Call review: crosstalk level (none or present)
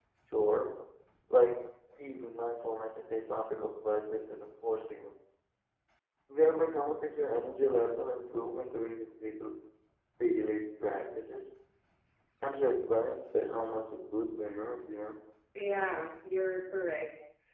none